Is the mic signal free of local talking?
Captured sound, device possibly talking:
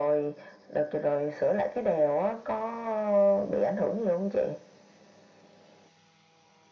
Yes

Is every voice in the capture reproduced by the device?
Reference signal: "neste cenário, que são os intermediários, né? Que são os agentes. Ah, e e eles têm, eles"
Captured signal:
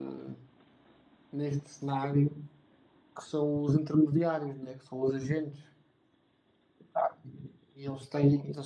Yes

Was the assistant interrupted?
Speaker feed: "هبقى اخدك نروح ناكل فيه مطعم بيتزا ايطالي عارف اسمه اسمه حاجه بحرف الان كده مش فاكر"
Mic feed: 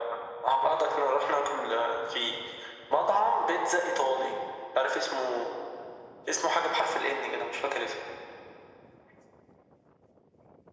No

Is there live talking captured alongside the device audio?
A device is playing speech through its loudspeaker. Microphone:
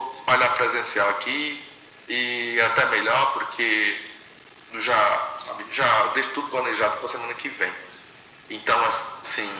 No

